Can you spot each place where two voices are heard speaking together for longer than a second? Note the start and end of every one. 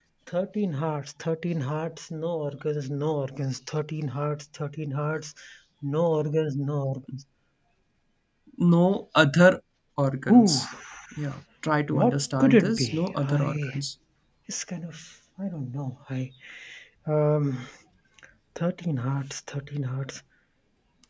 11.9-13.8

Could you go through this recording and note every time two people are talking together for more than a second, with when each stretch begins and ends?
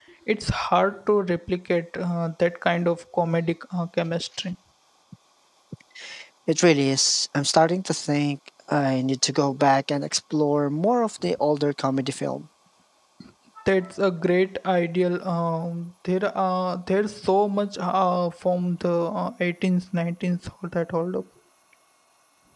none

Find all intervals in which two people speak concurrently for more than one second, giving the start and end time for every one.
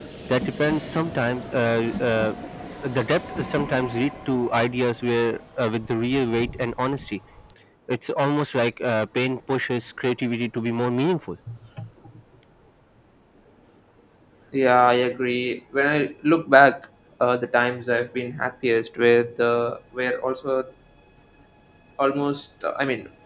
none

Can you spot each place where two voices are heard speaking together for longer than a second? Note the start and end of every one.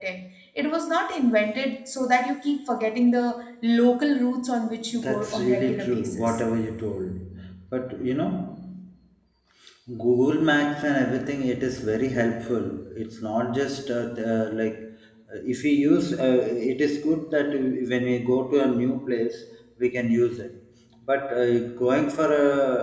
5.0-6.4

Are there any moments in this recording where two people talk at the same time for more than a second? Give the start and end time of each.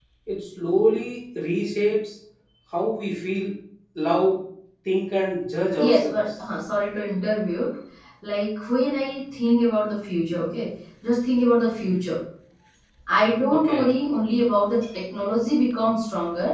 none

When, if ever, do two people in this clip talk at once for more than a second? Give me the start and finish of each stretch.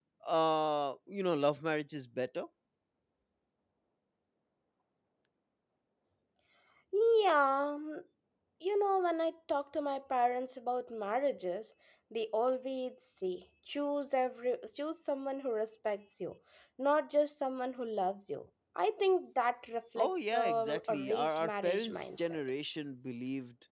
20.0-22.4

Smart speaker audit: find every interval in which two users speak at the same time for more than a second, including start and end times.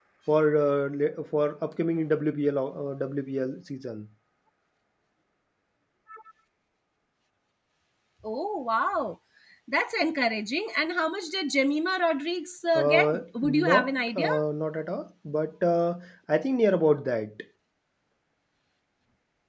12.8-14.3

